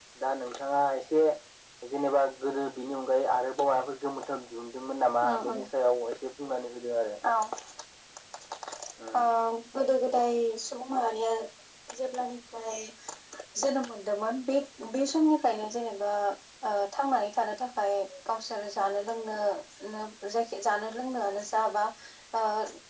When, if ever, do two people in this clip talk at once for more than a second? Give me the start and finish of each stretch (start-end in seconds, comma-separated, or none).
none